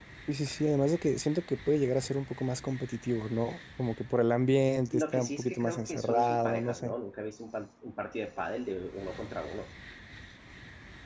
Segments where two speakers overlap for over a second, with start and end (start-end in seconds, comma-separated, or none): 4.9-6.9